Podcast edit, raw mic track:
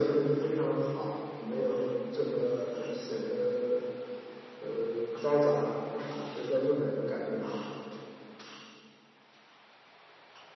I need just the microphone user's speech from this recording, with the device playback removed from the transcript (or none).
none